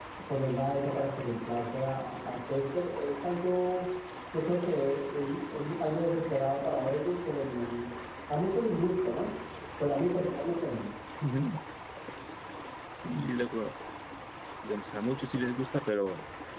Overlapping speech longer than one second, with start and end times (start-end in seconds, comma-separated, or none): none